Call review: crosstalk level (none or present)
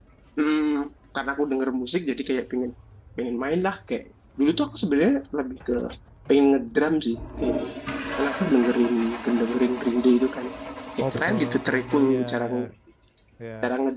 present